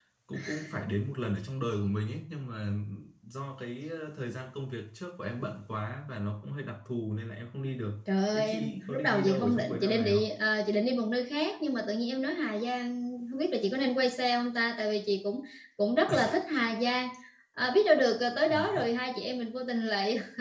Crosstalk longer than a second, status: present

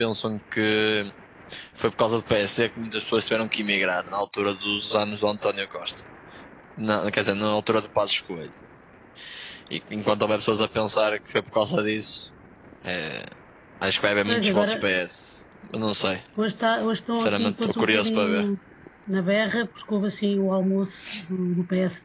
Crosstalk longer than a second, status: present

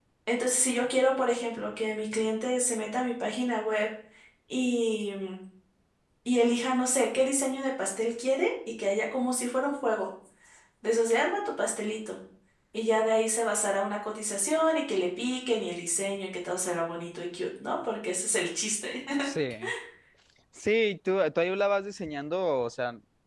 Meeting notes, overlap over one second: none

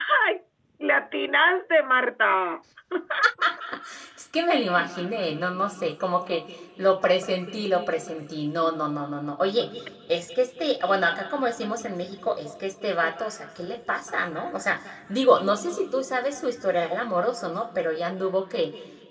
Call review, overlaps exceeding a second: none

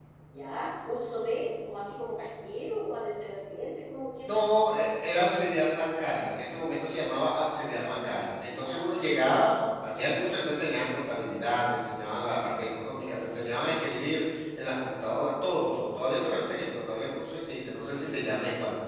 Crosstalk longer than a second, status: none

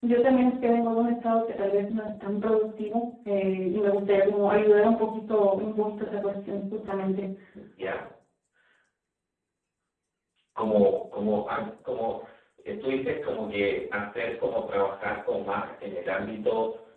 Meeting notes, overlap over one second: none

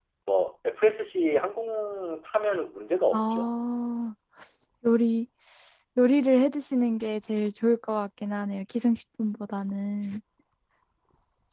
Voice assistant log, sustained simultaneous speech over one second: none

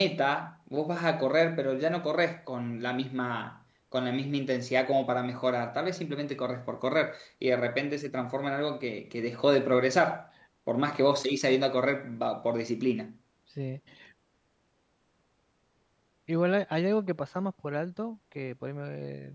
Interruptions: none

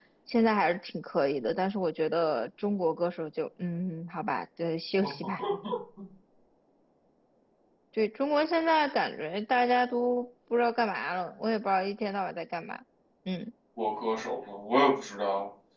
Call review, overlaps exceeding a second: none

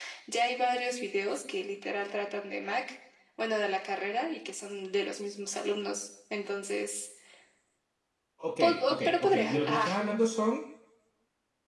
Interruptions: present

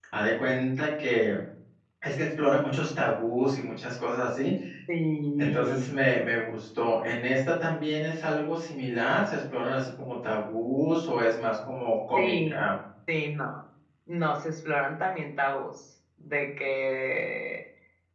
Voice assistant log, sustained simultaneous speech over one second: none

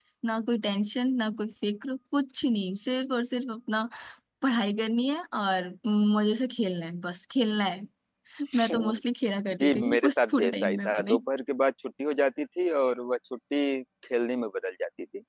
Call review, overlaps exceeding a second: present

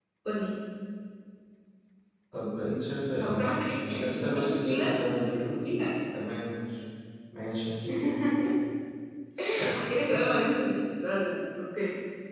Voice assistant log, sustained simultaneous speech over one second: present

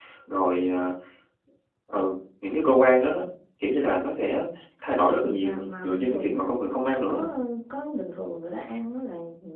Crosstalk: present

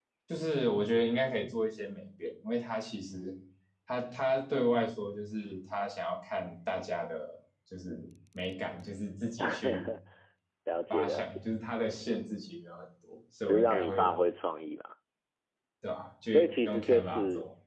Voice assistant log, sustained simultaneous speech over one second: present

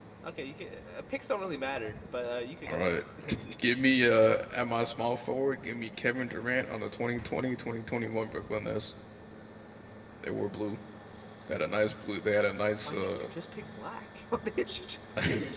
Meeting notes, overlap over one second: none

